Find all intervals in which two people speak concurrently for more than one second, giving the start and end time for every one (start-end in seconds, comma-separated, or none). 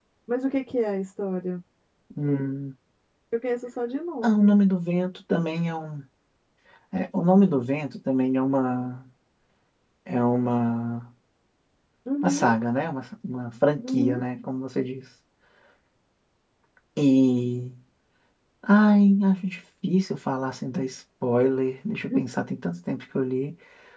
none